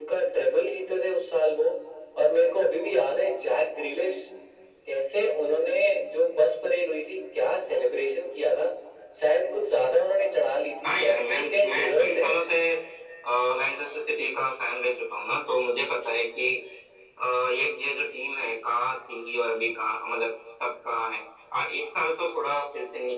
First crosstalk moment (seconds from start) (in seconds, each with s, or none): 10.8 s